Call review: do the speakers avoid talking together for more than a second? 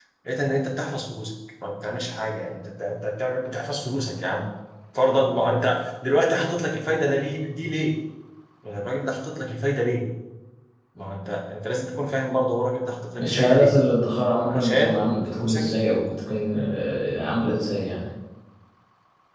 No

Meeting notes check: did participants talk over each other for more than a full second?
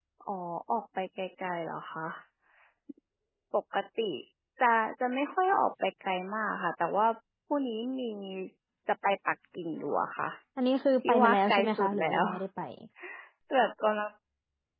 Yes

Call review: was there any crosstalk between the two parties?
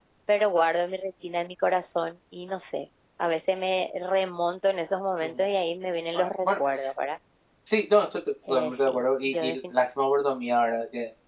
Yes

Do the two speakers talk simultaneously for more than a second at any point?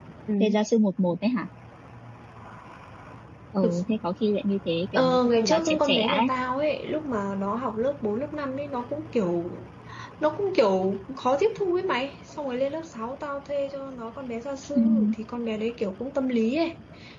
Yes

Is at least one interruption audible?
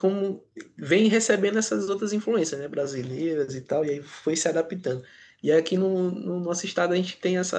No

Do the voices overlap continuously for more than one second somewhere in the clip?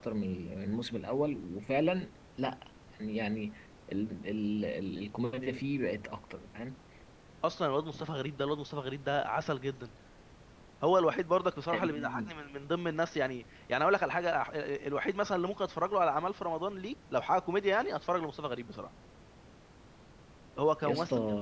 No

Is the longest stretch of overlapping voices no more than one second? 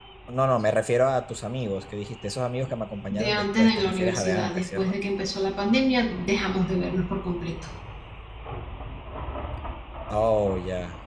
No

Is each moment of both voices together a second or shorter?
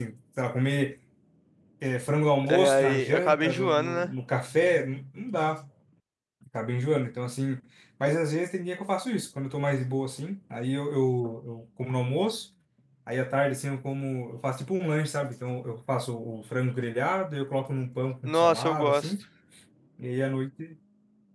No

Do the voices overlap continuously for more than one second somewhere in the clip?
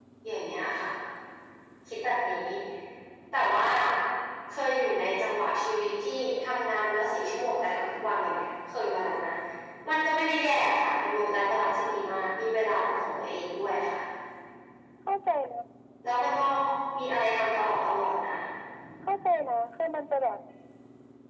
No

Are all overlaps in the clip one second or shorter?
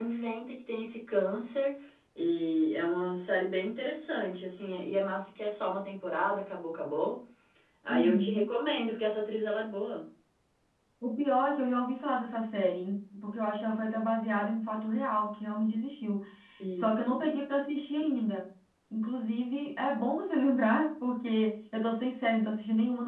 Yes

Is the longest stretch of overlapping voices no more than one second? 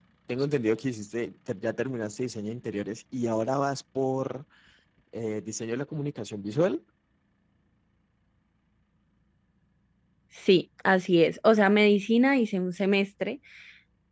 Yes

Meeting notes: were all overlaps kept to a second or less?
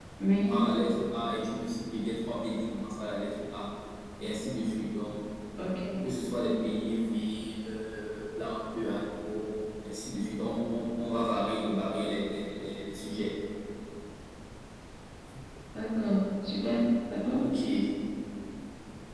Yes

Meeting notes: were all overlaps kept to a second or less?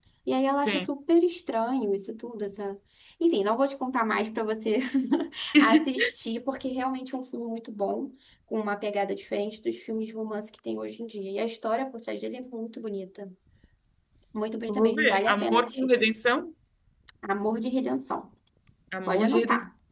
No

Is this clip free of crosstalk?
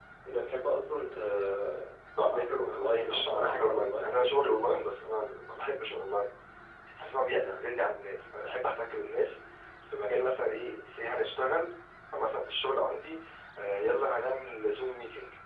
No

